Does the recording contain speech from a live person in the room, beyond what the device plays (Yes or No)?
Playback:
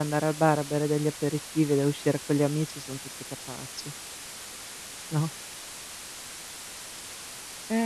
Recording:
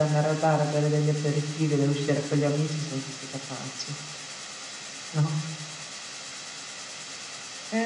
No